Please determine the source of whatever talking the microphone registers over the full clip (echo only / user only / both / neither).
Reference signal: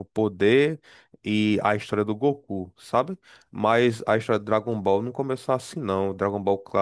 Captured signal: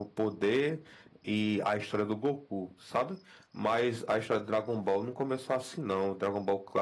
echo only